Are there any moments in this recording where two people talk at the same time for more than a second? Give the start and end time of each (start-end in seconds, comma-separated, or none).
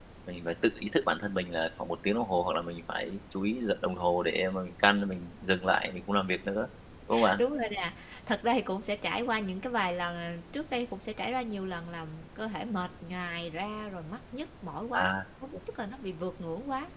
none